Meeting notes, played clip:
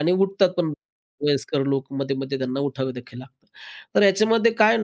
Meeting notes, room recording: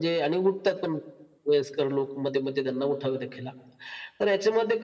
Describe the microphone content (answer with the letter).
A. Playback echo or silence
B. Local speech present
A